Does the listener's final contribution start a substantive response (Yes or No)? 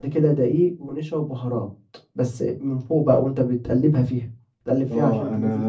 Yes